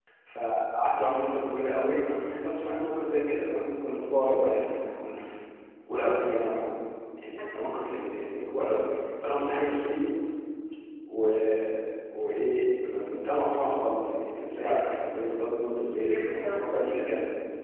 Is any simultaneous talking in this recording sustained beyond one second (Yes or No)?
Yes